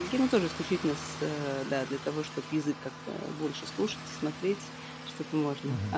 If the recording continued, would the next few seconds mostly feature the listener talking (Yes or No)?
Yes